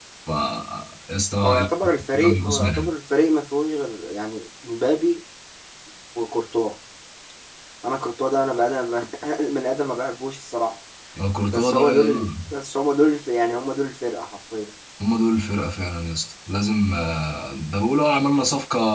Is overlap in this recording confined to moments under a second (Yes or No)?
No